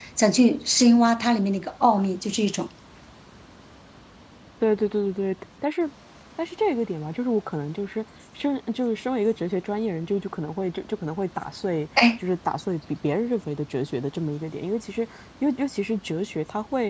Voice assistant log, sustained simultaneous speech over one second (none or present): none